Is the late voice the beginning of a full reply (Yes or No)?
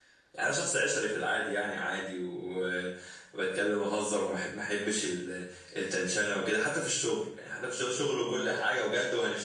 No